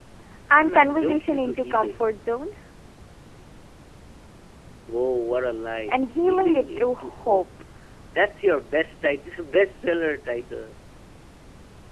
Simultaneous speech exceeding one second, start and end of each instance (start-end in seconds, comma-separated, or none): 0.5-2.0, 5.9-7.4